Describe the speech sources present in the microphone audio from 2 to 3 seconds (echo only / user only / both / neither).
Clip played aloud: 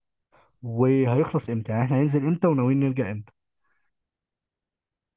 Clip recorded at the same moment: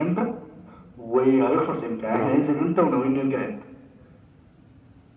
both